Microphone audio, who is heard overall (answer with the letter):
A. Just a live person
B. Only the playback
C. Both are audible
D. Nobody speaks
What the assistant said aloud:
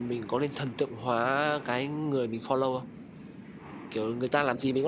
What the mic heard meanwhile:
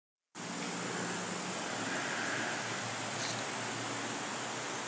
D